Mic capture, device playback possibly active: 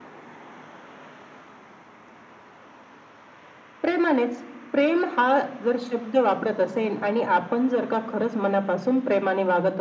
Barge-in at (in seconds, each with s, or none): none